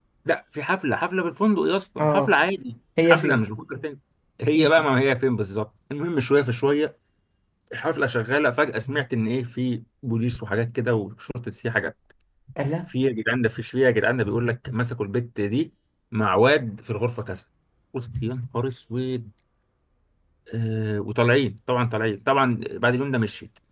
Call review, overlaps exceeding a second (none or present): none